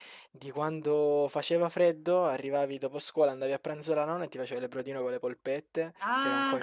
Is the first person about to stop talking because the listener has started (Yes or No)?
No